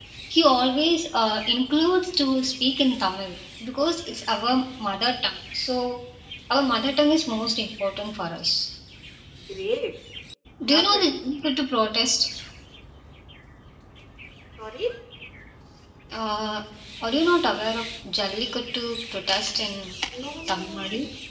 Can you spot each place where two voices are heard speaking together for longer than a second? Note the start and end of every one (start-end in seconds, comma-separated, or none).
none